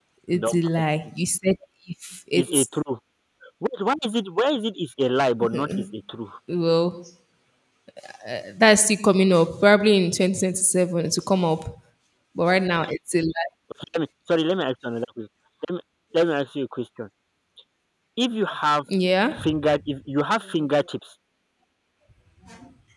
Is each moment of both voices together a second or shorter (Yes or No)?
Yes